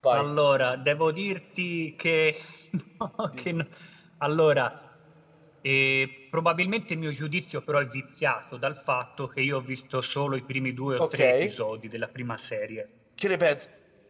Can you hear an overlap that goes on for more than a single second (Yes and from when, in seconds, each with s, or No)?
No